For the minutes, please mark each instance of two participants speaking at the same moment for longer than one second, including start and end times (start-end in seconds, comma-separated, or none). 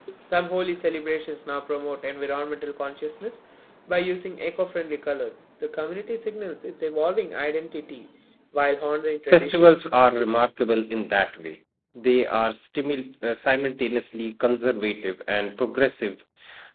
none